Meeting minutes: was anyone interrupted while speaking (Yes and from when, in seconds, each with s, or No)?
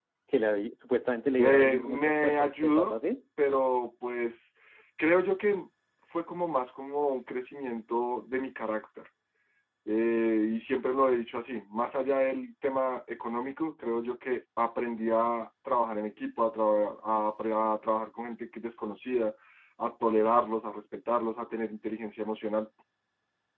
Yes, from 1.4 s